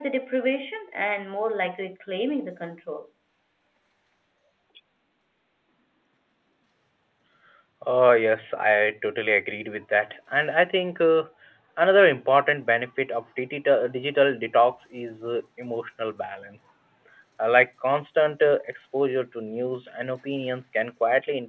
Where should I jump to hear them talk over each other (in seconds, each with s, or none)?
none